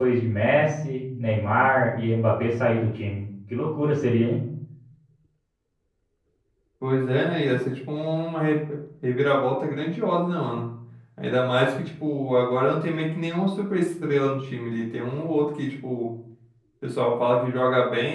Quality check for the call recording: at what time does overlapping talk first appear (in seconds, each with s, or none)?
none